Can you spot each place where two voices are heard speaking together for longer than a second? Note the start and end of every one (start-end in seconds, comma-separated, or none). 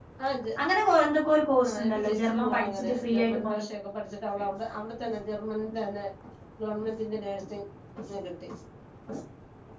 1.7-3.5